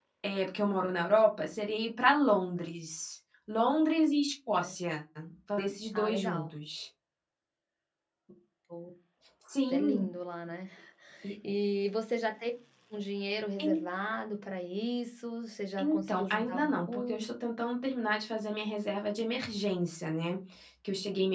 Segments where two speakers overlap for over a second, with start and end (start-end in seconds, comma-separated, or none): 15.8-17.3